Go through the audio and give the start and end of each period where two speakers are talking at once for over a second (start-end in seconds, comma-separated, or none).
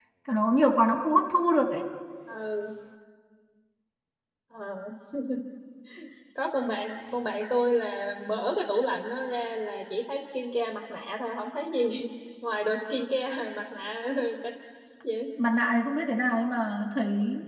none